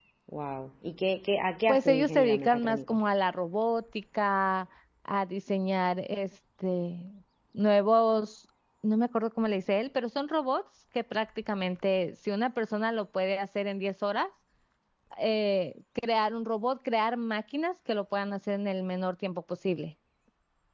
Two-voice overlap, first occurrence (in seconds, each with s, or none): 1.7 s